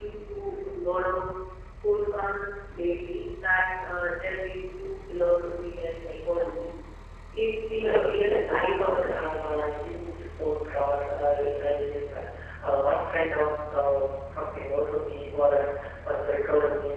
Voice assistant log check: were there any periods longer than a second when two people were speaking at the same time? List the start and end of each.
7.8-9.1

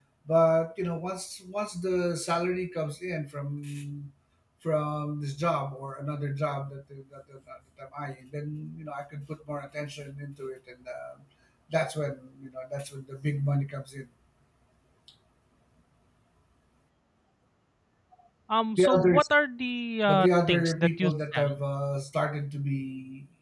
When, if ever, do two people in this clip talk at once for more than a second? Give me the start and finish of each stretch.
20.1-21.6

